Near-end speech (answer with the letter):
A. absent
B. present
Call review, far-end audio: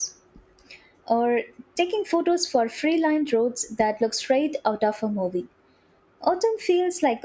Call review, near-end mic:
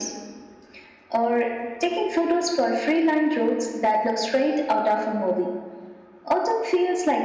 A